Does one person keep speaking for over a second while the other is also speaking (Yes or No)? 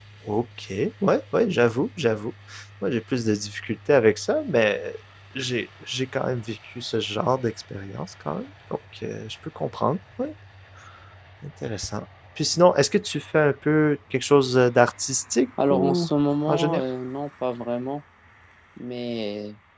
No